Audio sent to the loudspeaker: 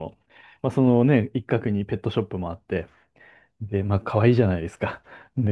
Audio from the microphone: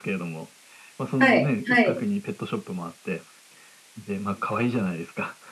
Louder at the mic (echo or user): user